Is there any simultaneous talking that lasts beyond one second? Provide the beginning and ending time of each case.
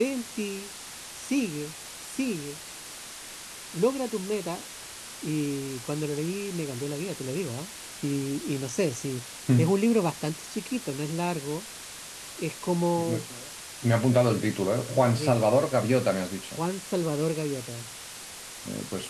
none

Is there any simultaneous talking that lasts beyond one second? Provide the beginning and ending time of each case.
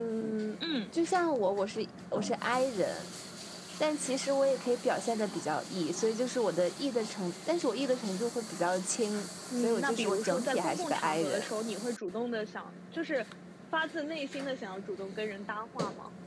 9.6-11.5

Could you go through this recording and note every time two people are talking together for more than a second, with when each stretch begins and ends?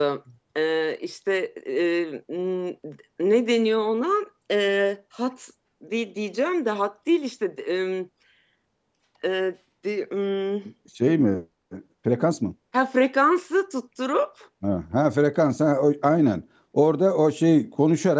none

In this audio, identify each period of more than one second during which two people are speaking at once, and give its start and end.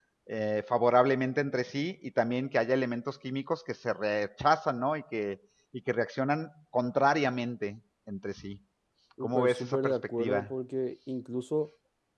9.2-10.5

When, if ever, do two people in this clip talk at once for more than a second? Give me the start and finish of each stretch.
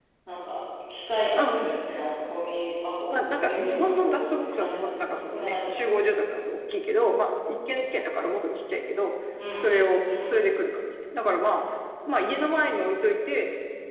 3.1-5.9

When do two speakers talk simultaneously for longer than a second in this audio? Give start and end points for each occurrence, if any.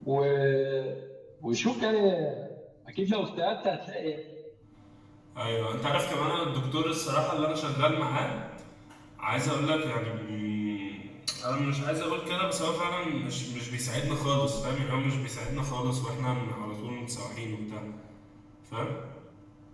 none

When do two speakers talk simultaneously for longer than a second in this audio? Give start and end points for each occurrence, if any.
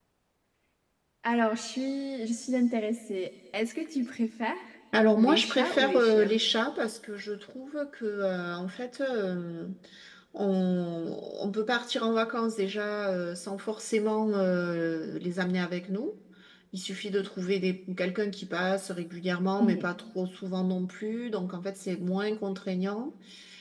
5.2-6.4

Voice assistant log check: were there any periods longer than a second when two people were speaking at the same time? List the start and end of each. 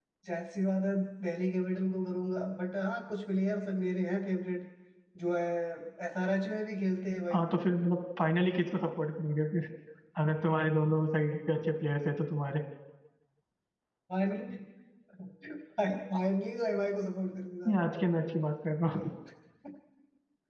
none

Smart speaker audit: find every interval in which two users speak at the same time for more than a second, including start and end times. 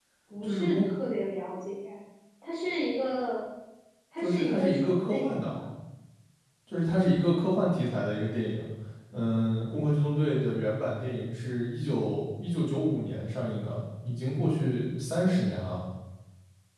4.2-5.5

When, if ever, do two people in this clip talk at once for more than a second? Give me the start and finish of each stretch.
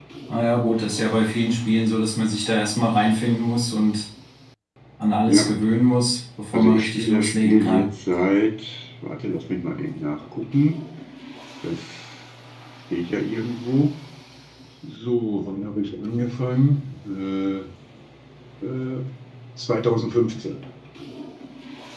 6.5-7.9

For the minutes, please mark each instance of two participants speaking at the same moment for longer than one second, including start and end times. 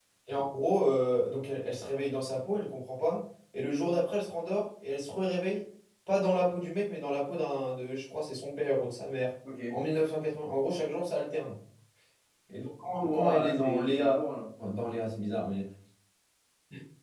12.8-14.3

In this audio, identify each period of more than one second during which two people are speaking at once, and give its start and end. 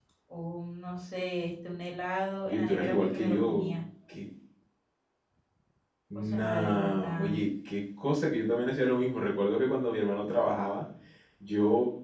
2.5-3.8, 6.2-7.4

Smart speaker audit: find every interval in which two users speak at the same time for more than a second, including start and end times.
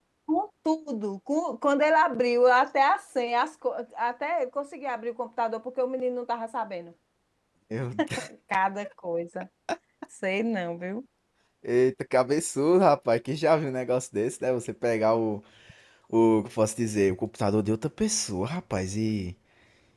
none

